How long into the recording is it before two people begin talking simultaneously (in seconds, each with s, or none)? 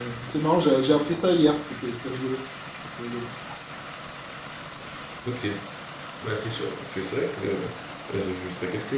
none